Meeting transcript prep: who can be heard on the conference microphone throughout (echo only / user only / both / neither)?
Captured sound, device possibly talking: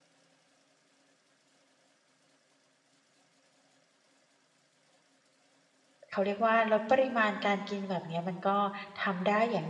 user only